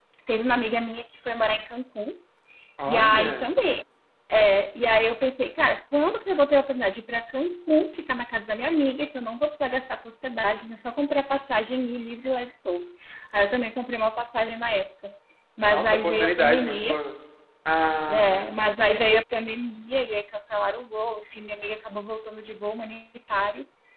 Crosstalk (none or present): present